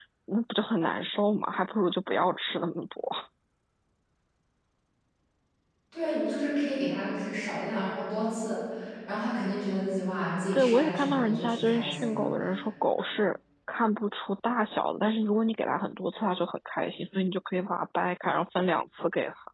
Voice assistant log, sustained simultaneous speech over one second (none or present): present